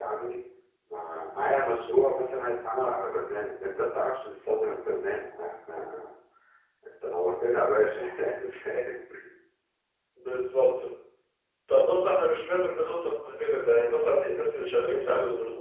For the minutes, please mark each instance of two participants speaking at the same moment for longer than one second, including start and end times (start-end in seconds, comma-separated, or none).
none